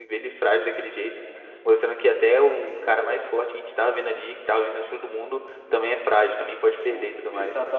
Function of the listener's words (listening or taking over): taking over